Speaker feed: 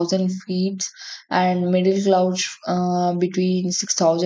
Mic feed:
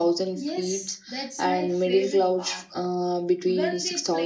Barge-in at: 0.3 s

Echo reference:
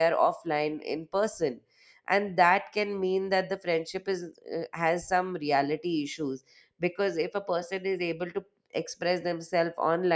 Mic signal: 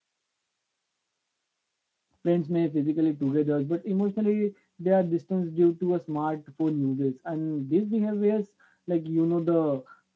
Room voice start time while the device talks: 2.2 s

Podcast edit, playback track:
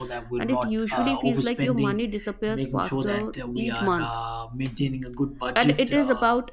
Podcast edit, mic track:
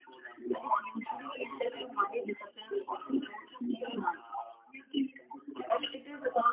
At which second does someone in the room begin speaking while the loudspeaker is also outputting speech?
none

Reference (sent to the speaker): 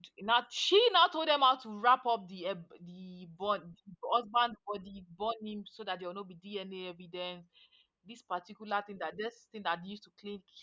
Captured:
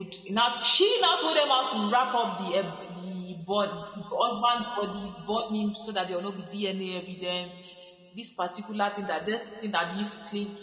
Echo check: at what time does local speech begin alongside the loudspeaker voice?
none

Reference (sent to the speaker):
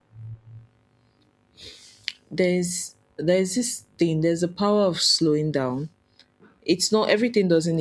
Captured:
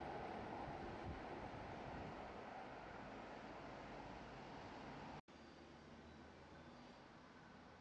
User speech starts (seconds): none

